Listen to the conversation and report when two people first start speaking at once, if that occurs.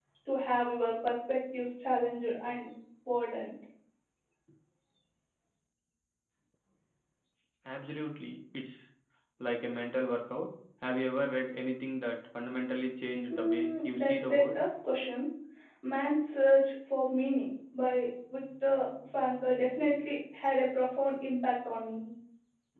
13.3 s

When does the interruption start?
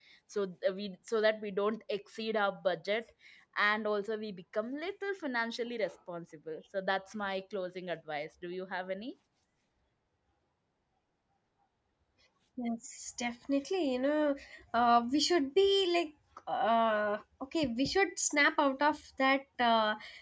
none

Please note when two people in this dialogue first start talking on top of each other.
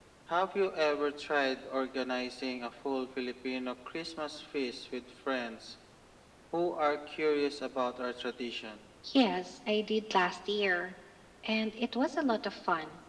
none

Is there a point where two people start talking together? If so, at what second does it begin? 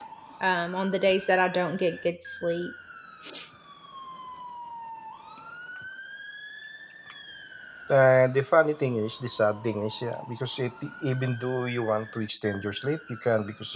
none

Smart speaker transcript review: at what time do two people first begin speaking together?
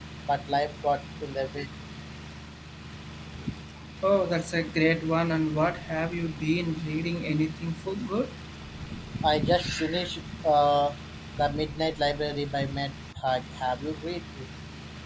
none

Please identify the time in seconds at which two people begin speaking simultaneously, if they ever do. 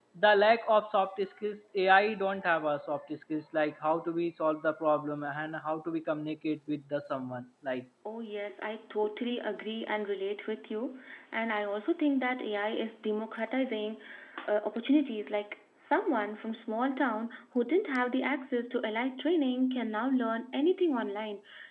none

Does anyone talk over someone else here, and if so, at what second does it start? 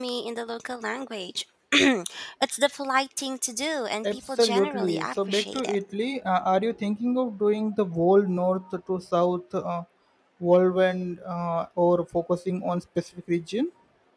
4.0 s

